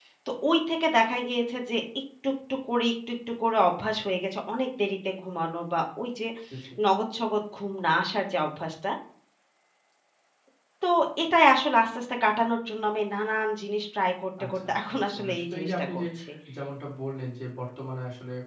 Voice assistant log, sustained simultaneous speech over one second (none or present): present